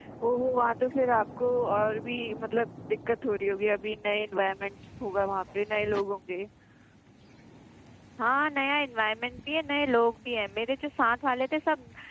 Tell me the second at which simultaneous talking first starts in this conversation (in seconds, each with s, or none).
none